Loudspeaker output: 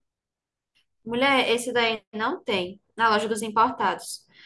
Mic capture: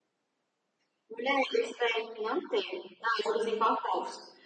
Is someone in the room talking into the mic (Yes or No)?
No